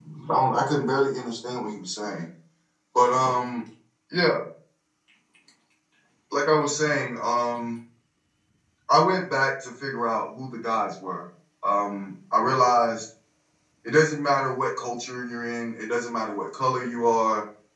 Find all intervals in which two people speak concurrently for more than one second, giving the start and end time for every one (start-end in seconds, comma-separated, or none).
none